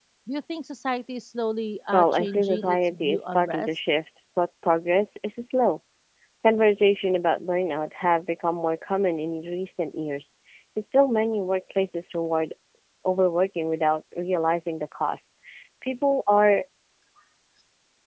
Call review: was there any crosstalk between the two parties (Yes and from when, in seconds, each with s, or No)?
Yes, from 1.9 s